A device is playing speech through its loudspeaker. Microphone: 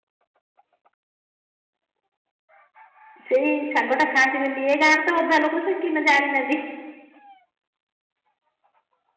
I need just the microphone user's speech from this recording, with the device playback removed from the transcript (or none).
ସେଇ ସାଗ ଟା ଖାଆନ୍ତି ବୋଲି ଏ ଗାଁରେ ତ ଅଧା ଲୋକ ସିକିନା କି ଜାଣିନାହାନ୍ତି।